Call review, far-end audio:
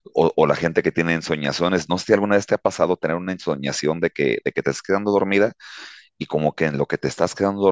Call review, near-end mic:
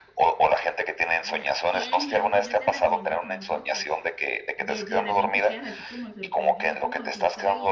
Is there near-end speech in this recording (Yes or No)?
Yes